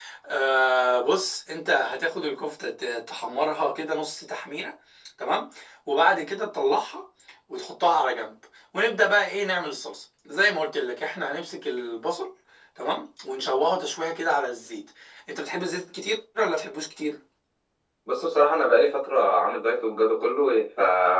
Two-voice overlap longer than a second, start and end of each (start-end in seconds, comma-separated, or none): none